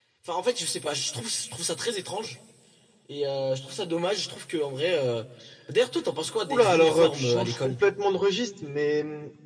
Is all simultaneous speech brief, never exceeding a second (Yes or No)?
No